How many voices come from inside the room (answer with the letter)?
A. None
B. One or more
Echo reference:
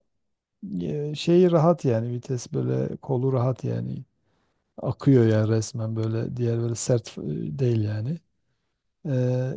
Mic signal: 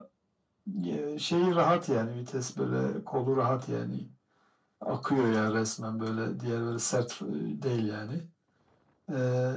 A